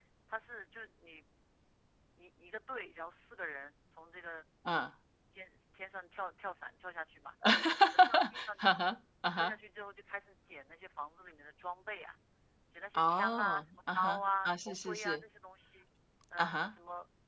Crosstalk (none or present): present